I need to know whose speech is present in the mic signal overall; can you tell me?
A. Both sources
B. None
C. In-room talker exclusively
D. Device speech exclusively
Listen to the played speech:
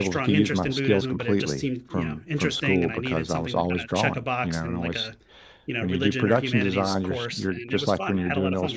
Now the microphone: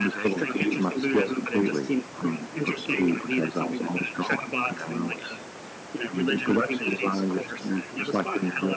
D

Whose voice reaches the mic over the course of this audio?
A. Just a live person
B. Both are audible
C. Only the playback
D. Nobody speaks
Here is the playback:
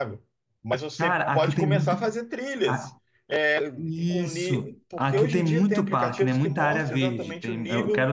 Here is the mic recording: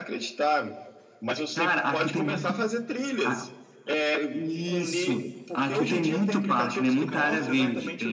B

